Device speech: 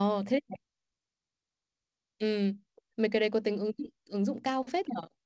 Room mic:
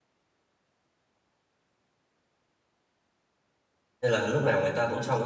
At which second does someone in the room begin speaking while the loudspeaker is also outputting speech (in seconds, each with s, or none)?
4.0 s